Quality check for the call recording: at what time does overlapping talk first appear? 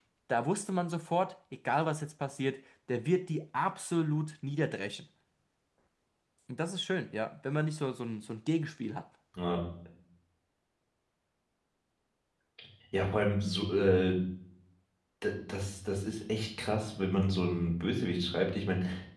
none

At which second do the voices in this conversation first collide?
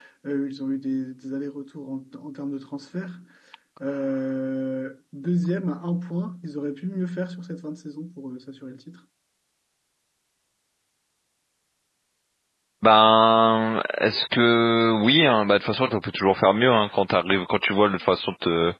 none

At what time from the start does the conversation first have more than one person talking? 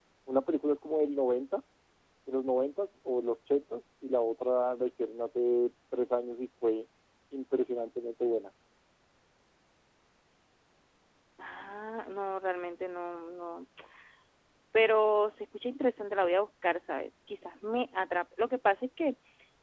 none

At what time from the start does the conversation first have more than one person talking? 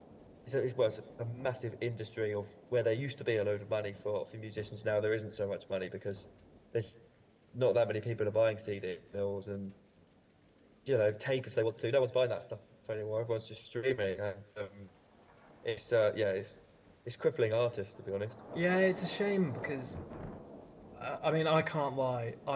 none

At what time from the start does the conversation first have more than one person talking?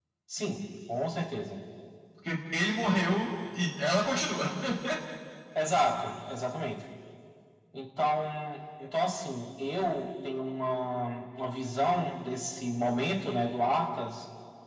none

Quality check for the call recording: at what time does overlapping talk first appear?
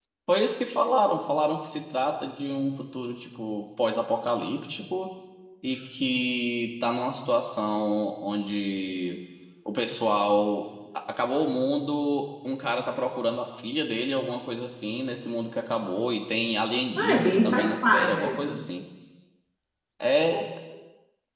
17 s

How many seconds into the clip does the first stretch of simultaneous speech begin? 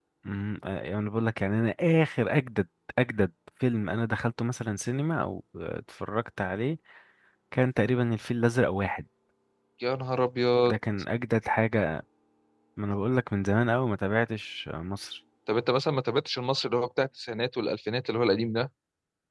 none

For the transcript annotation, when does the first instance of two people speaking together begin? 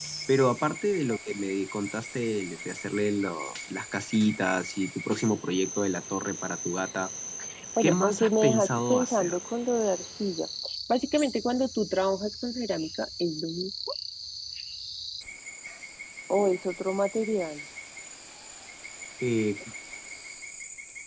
8 s

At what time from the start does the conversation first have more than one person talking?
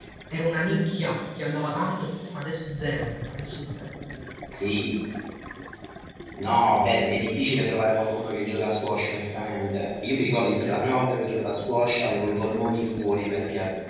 none

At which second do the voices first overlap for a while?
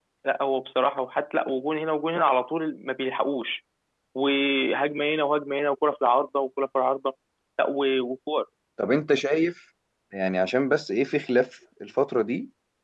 none

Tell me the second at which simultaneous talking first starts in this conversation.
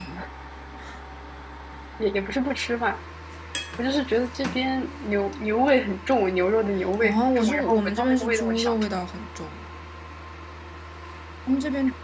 7 s

